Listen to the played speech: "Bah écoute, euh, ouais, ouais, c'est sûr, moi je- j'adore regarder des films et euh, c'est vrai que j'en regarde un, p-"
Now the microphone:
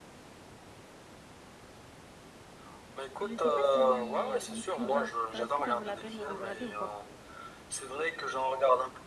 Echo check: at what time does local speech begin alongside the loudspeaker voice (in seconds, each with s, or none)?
3.2 s